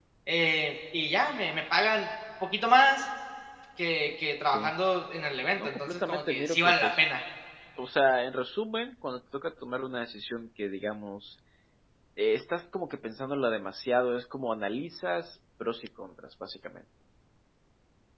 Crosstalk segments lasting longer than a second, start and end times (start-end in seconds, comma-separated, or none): 5.6-7.0